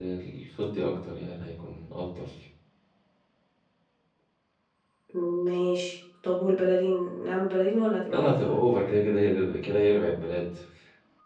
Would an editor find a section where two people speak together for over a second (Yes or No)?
No